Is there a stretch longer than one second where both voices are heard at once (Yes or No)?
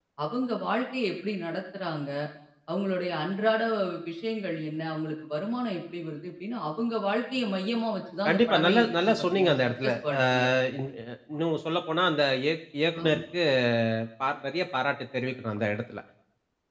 Yes